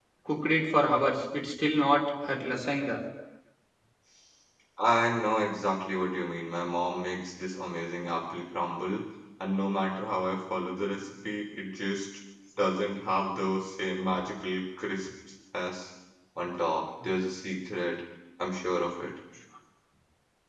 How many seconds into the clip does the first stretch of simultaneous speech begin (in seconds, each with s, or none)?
none